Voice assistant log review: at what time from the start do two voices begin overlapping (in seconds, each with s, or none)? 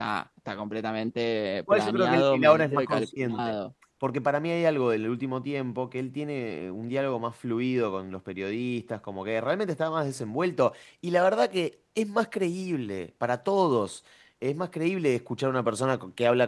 1.7 s